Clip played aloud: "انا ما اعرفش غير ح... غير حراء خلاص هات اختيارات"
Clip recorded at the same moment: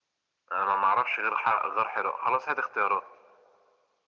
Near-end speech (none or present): none